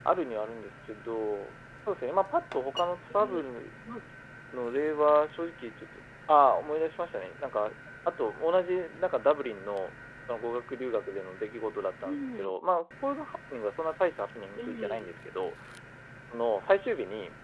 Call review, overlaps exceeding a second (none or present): none